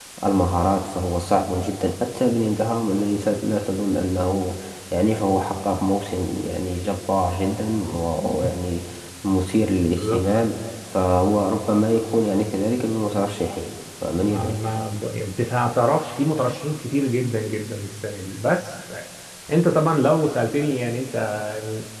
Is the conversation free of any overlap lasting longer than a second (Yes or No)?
Yes